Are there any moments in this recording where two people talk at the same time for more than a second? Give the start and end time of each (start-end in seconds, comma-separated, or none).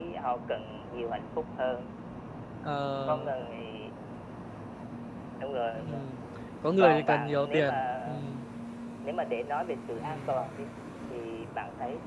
6.8-8.2